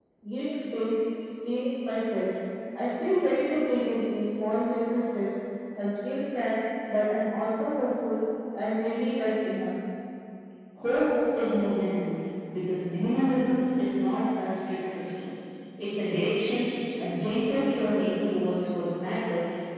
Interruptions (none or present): none